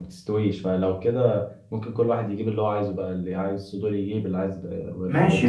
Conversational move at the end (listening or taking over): taking over